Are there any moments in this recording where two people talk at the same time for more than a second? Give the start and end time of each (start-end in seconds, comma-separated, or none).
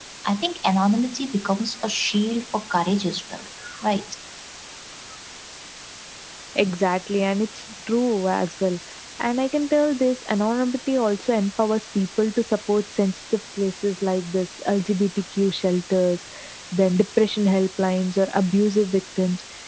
none